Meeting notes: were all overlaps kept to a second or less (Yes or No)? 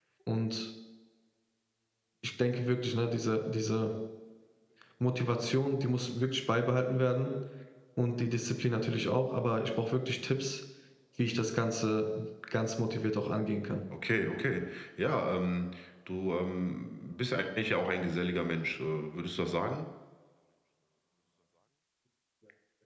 Yes